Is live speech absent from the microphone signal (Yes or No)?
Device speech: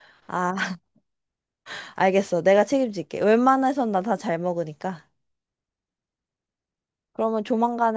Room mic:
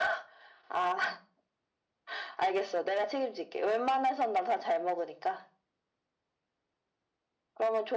Yes